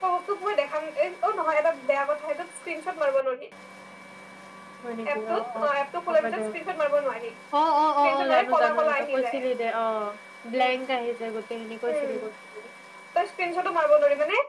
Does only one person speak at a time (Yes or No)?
No